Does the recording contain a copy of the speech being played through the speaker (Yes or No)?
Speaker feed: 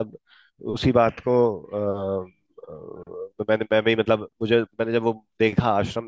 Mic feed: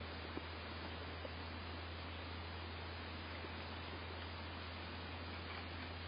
No